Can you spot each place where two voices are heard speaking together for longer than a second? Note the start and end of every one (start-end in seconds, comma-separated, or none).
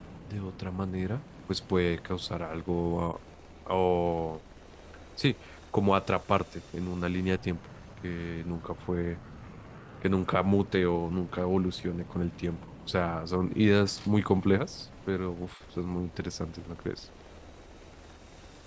none